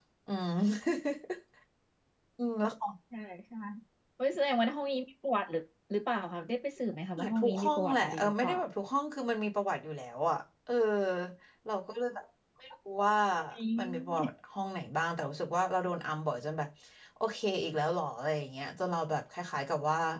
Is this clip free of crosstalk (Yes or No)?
No